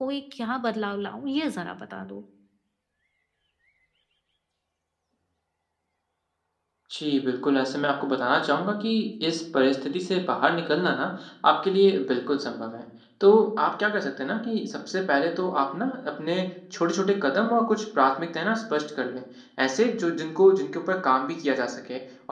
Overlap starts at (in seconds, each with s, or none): none